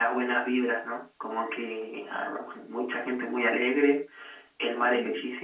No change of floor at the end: Yes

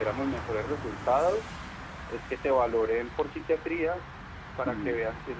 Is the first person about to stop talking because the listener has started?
No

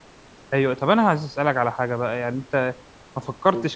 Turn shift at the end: No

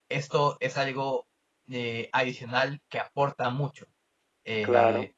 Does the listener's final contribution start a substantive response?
No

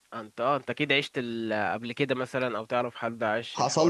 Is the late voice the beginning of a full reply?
Yes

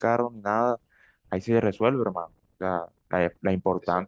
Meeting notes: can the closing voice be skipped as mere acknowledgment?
Yes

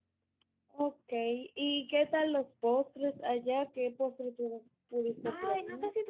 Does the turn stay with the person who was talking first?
No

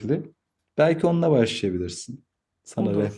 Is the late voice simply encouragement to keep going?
No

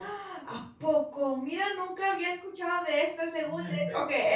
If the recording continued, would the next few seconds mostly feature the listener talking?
Yes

